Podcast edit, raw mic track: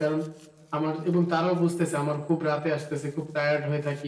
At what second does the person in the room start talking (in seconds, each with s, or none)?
none